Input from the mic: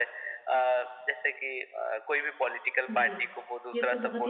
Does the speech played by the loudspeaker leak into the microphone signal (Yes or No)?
Yes